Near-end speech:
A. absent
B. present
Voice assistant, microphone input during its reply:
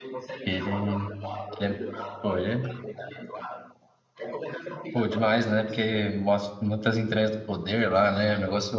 B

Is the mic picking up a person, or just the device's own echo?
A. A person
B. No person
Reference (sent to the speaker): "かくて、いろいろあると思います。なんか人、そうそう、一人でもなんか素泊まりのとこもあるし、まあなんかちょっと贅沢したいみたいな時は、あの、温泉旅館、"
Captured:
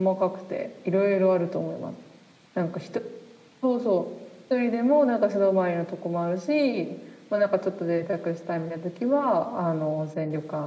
B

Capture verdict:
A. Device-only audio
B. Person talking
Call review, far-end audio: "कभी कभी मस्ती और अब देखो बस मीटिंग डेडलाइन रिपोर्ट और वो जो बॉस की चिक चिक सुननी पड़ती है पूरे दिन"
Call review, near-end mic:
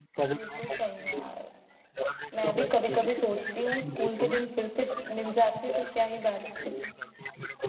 B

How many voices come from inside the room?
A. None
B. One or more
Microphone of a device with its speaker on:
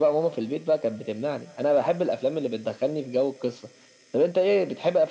A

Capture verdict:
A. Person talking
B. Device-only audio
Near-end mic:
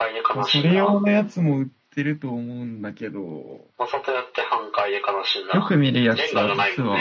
A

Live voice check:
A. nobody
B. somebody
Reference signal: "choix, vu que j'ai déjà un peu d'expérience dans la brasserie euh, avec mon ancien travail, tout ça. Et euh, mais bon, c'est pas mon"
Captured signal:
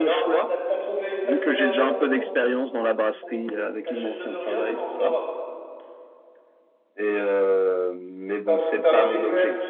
B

